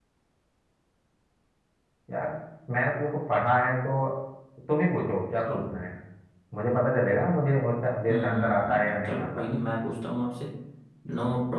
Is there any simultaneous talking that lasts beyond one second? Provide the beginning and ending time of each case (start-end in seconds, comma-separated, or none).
8.1-9.5